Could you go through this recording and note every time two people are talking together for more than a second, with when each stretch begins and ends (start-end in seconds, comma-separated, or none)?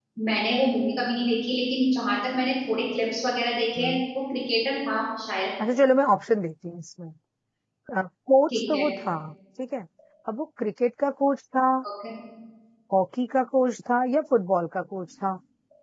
none